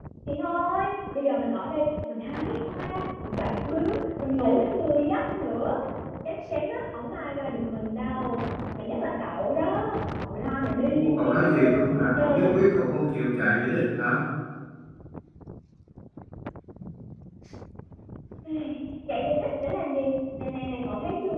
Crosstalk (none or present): present